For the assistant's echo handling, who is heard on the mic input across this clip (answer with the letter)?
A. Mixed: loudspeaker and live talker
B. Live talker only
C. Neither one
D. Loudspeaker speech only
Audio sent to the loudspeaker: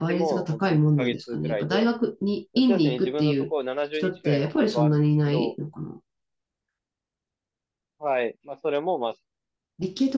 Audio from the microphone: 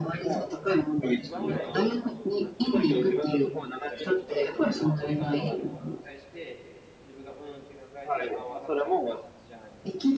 A